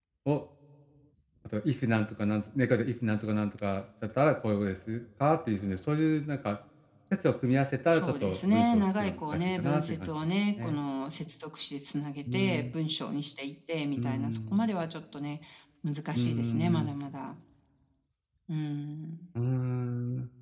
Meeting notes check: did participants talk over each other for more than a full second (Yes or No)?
Yes